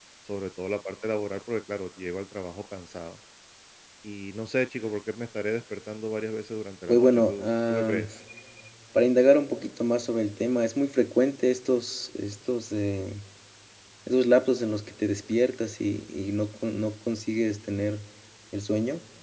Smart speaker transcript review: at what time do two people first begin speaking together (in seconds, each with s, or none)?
6.9 s